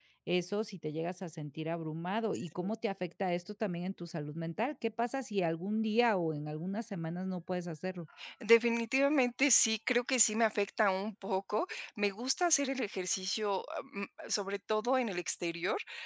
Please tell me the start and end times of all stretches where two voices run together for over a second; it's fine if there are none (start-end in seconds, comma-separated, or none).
none